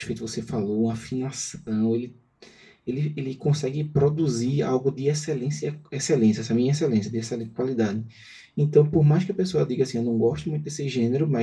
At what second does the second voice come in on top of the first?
none

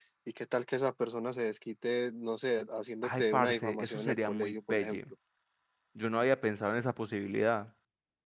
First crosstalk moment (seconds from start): 3.0 s

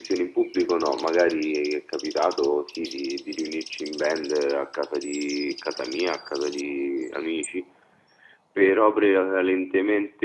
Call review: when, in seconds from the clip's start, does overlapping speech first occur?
none

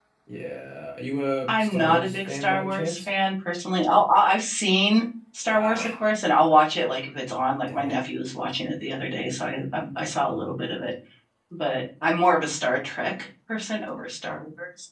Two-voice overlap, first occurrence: 1.5 s

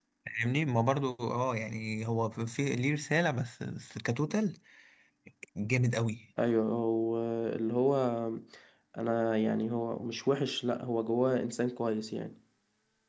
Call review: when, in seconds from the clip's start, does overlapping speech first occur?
none

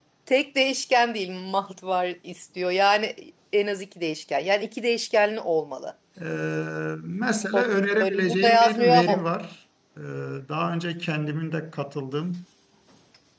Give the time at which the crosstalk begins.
7.5 s

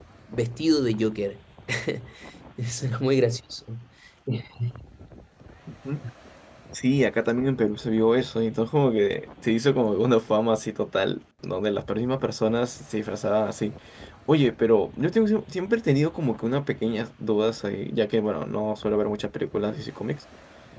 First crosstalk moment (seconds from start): none

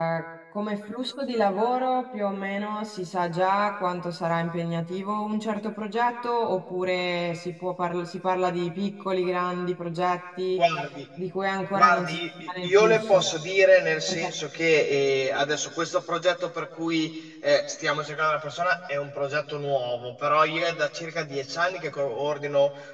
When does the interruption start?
11.7 s

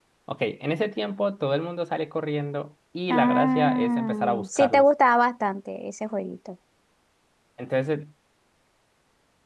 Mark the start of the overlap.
3.1 s

